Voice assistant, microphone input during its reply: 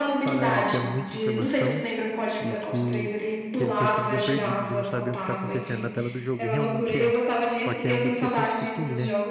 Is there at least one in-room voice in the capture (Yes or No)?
Yes